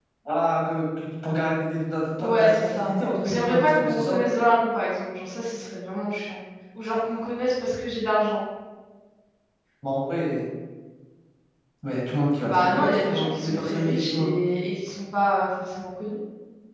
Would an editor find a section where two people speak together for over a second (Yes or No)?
Yes